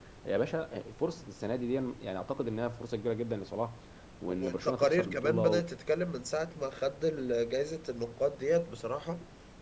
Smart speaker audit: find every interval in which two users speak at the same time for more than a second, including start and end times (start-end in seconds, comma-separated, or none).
4.3-5.6